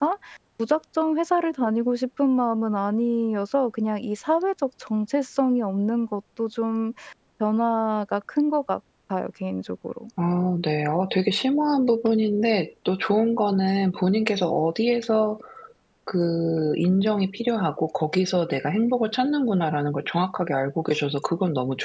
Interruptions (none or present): none